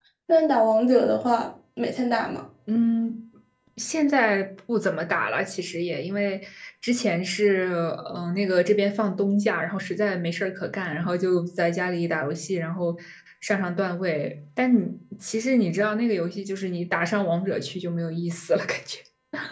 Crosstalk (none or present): none